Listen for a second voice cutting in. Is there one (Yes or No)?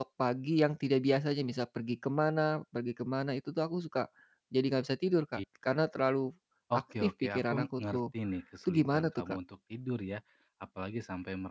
Yes